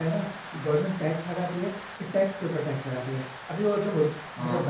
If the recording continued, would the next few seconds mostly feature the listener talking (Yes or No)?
No